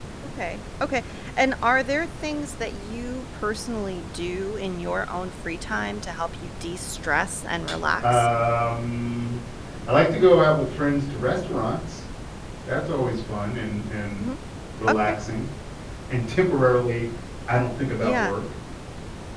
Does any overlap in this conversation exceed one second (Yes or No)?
No